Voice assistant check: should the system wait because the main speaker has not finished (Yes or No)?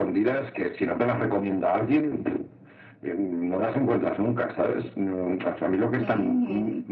Yes